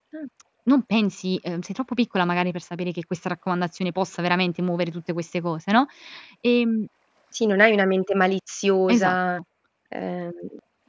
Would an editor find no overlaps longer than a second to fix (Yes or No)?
Yes